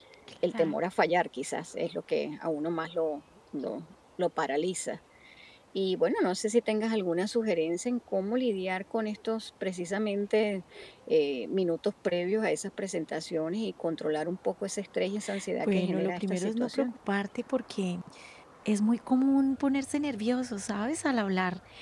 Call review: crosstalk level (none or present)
present